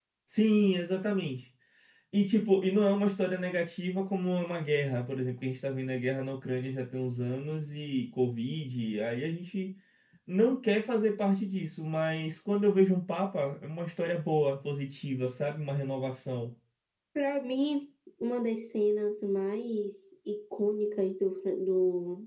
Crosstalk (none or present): none